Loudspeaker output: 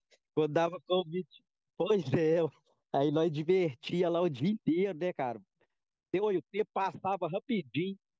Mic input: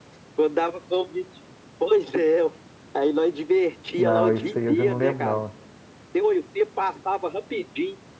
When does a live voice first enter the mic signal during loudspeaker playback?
4.0 s

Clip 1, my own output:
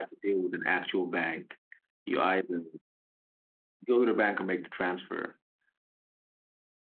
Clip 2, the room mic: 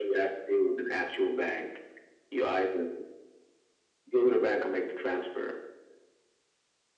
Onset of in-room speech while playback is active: none

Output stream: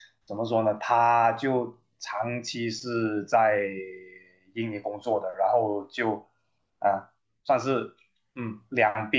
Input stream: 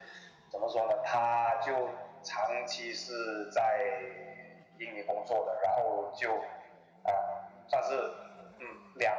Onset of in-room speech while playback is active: none

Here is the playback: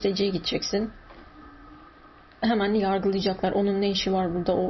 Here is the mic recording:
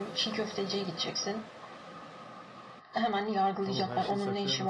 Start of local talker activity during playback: 3.6 s

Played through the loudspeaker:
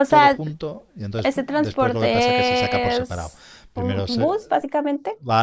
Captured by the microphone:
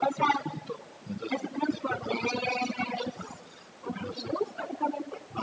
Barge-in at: none

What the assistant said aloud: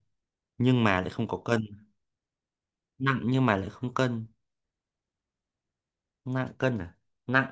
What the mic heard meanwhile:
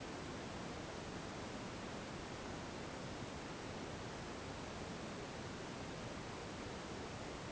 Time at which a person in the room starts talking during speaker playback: none

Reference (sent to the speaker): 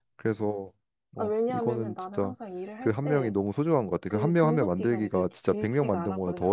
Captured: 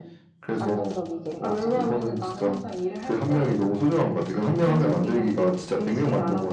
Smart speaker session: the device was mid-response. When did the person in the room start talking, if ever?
0.6 s

